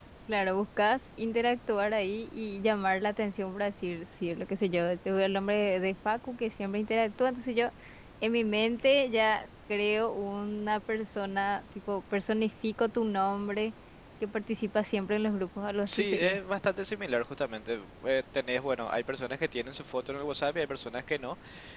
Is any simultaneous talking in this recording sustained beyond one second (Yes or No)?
No